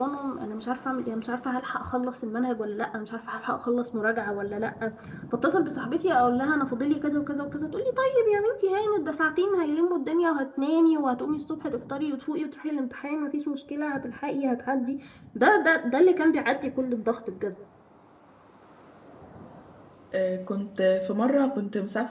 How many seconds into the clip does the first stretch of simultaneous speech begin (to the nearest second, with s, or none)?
none